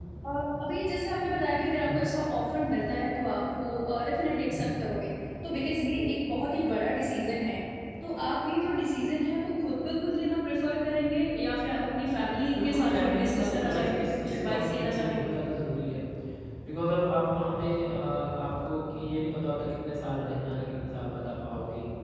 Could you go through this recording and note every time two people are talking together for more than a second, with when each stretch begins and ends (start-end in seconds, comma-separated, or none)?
12.6-15.3